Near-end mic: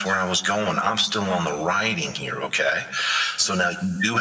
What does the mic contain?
echo only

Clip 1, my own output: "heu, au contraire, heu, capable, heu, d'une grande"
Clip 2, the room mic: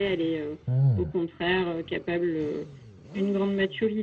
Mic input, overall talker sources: both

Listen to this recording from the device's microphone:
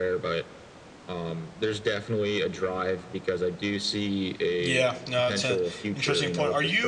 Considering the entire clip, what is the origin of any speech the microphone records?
both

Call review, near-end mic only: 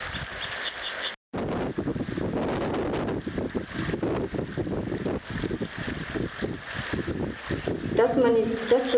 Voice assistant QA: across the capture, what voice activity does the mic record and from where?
user only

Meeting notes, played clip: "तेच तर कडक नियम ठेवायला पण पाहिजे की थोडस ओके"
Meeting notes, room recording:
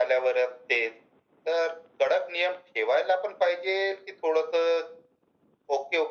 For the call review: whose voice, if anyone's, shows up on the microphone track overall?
echo only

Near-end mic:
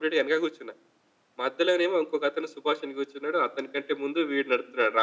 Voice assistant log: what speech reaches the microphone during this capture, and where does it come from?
echo only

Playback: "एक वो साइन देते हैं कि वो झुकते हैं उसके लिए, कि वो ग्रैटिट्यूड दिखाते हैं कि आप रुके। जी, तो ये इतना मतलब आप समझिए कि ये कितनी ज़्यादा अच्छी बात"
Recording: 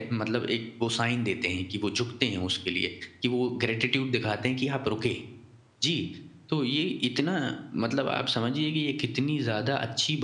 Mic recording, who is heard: echo only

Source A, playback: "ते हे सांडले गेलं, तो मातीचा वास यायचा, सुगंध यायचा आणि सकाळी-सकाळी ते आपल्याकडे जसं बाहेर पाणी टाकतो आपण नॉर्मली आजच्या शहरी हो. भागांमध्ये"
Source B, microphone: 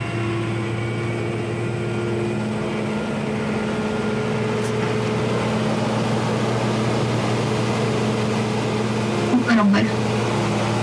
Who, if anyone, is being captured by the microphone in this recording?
user only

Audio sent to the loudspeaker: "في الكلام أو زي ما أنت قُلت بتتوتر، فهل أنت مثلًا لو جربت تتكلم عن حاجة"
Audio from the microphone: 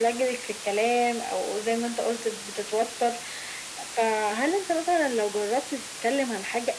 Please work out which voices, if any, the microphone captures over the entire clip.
echo only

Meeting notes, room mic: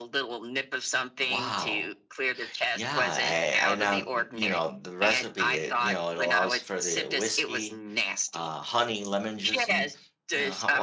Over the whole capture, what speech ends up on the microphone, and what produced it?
both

